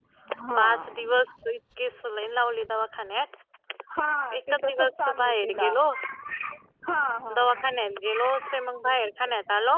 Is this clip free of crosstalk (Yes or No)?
No